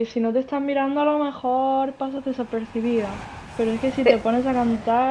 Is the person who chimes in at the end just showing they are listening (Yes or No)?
Yes